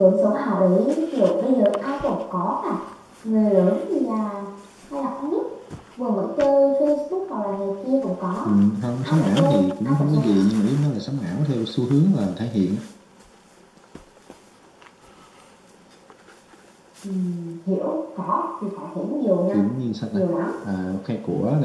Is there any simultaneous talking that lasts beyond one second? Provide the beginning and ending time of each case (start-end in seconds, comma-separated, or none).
9.0-10.4